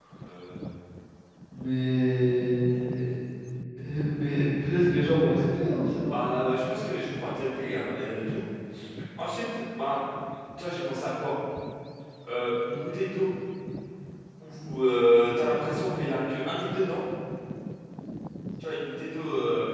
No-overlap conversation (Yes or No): Yes